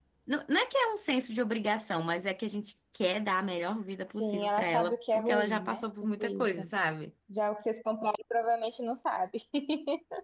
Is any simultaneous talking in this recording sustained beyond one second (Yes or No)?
Yes